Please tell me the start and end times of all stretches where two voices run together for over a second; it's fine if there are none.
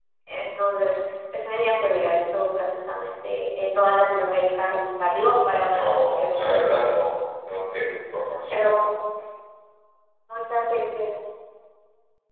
5.7-7.0

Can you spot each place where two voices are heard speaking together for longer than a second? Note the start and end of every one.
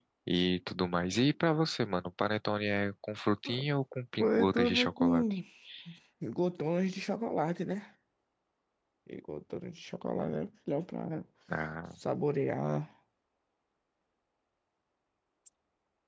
4.2-5.4

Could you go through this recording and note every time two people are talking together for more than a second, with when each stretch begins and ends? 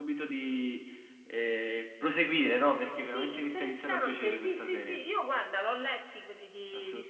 3.0-5.0

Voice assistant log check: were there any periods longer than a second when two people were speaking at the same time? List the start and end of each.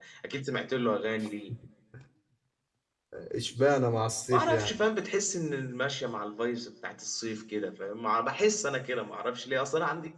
none

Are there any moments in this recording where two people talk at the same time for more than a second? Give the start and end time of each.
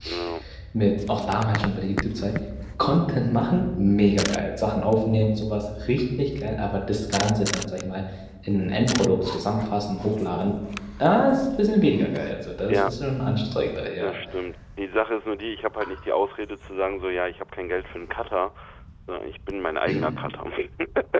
none

